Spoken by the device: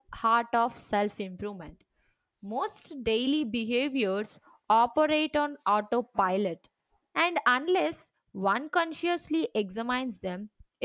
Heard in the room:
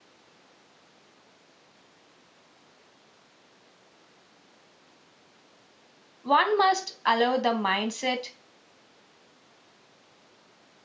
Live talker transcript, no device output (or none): one must allow the mindset